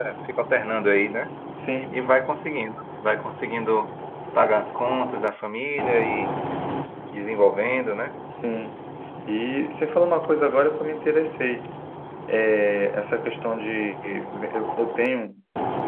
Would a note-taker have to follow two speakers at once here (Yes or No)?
No